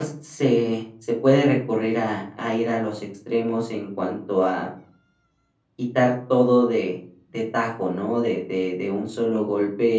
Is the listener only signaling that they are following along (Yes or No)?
Yes